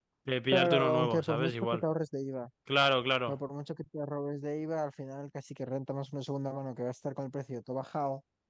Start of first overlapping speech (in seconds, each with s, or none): 0.5 s